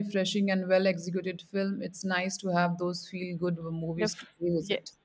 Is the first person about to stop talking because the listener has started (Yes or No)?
Yes